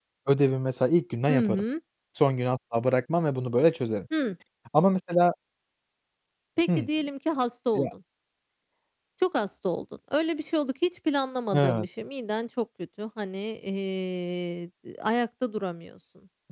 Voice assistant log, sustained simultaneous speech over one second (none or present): none